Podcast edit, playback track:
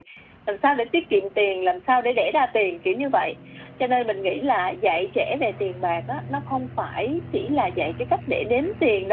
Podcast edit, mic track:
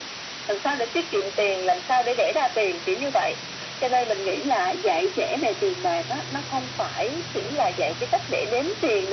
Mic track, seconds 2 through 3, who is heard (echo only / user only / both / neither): echo only